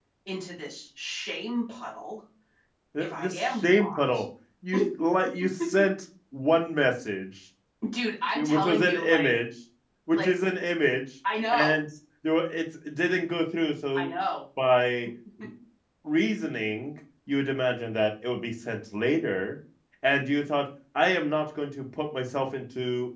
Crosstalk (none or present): present